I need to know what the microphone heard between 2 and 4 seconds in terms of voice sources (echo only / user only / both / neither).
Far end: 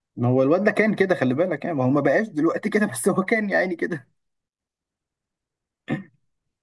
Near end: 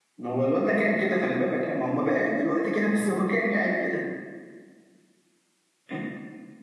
echo only